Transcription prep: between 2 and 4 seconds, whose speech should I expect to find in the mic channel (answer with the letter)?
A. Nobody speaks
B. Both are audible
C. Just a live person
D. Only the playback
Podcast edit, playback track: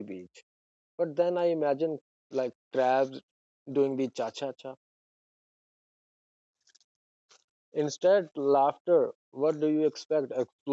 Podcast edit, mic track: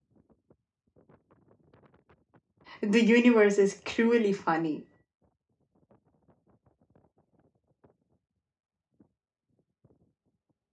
C